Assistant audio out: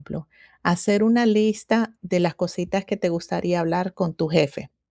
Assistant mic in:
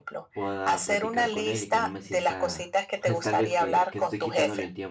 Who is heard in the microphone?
both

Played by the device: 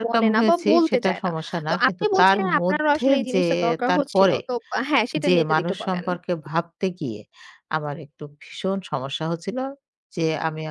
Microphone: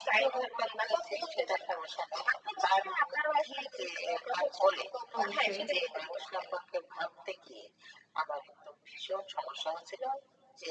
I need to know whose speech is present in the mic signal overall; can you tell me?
both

